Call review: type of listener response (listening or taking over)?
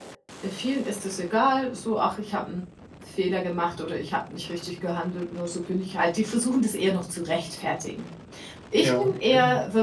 listening